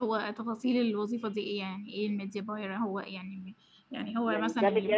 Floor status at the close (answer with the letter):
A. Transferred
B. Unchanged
A